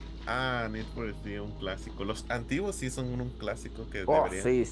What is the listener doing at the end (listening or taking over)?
taking over